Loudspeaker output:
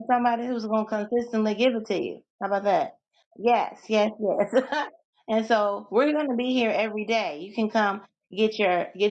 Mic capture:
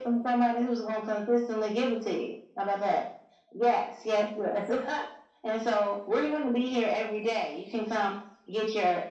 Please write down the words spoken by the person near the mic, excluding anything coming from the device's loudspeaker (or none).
none